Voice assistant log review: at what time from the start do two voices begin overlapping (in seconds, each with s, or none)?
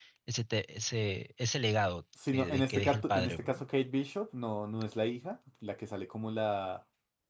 2.2 s